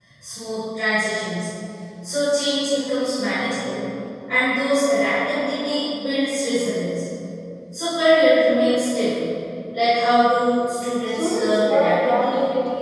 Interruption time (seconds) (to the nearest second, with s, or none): 11 s